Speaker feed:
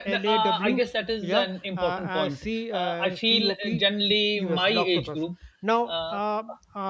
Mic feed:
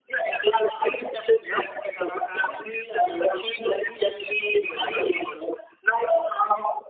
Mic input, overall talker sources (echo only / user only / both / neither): echo only